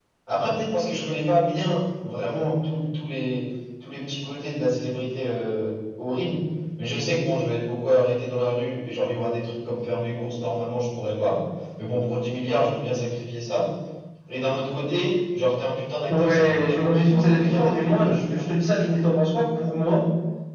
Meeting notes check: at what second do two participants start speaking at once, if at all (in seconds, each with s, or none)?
16.1 s